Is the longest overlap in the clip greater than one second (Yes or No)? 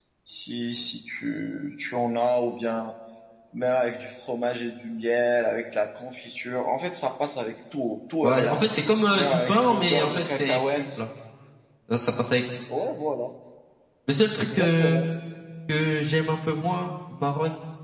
Yes